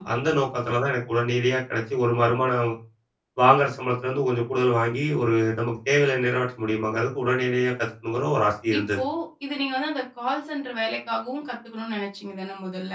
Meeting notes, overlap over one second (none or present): none